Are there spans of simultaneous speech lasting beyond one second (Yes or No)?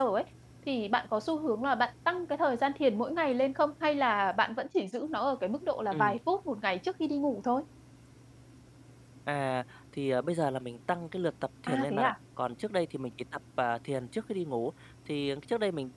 No